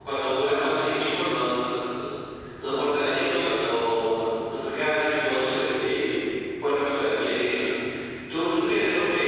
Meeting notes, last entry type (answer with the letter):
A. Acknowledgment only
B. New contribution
A